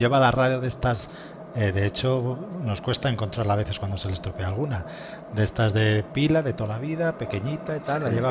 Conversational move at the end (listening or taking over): listening